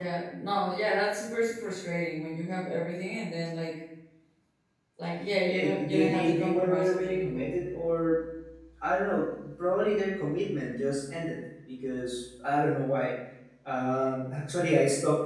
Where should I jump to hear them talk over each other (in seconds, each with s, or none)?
5.5 s